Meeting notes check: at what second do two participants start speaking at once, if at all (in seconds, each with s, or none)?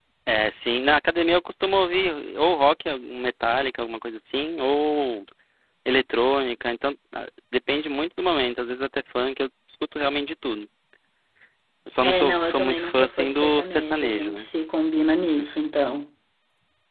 12.0 s